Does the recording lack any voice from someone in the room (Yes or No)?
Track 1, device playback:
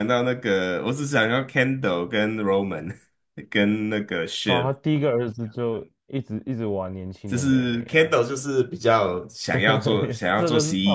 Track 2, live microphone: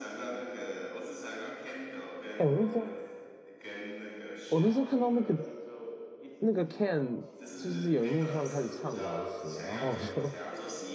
No